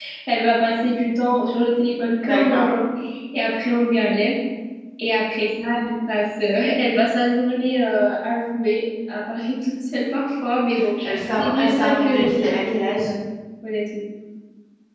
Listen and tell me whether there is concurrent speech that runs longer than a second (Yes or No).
Yes